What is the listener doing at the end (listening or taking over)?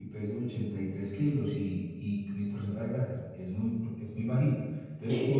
taking over